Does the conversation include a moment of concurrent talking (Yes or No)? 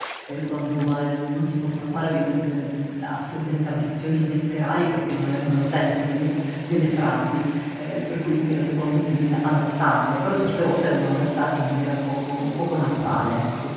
No